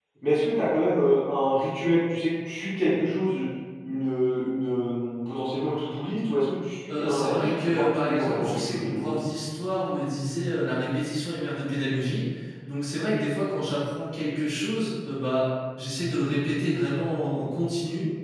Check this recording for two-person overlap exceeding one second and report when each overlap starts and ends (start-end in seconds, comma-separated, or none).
6.9-9.1